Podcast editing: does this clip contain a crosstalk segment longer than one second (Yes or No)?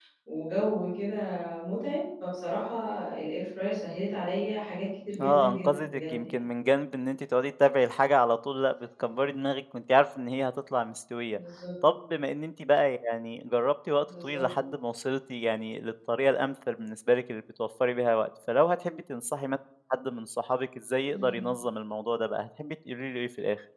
Yes